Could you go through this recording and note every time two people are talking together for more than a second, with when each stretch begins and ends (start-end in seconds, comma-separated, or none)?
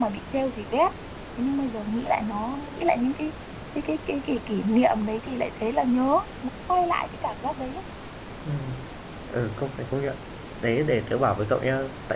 none